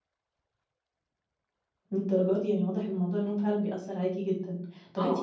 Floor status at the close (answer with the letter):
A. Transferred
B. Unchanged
B